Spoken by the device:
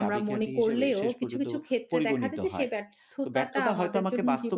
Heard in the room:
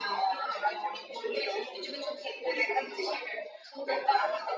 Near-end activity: none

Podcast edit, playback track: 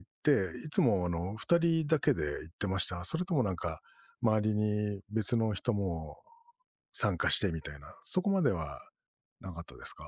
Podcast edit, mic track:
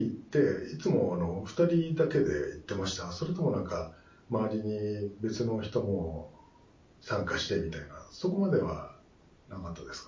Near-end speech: none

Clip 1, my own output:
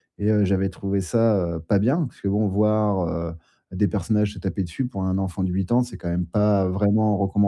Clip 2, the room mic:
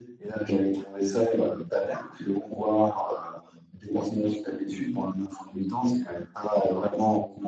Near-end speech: none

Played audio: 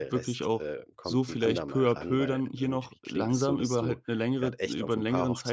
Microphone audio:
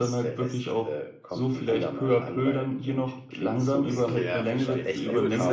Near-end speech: present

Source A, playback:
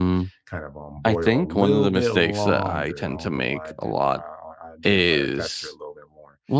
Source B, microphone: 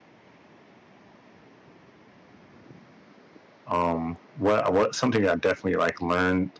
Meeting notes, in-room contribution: present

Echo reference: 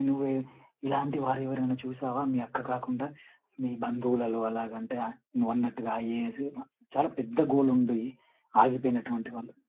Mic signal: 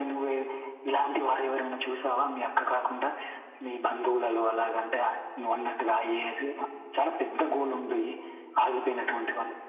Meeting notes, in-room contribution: none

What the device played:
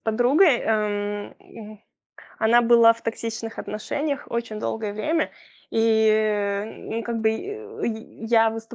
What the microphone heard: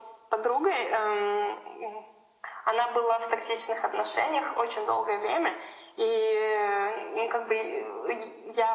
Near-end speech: none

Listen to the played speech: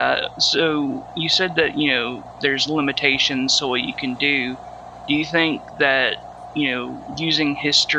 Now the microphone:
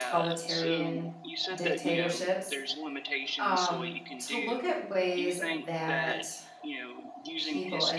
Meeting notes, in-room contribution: present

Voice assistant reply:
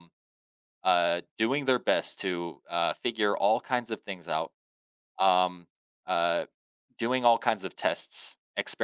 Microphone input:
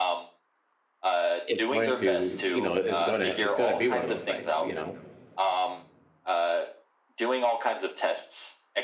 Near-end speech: present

